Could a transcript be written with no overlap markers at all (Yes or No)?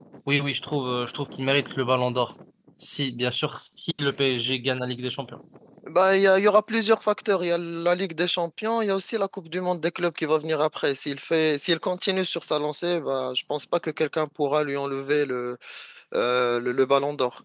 Yes